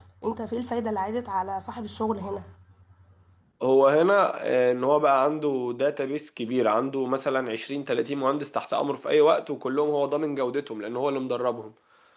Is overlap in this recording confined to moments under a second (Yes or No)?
Yes